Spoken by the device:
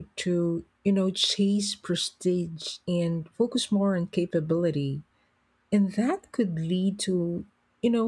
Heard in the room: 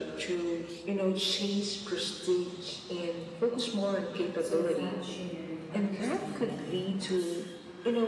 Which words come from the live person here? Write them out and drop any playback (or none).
So that shared understanding